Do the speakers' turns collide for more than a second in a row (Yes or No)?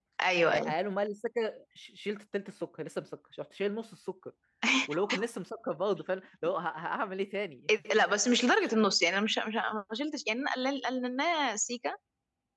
No